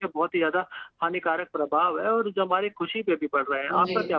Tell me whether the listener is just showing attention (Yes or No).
No